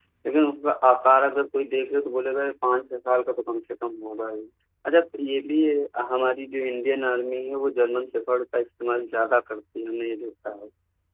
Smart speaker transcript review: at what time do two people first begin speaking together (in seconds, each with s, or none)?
none